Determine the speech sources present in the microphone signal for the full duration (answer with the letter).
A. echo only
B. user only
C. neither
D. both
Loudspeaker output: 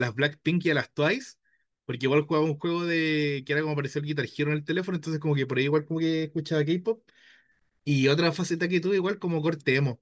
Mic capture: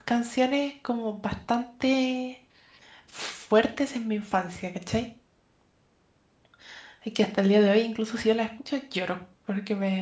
B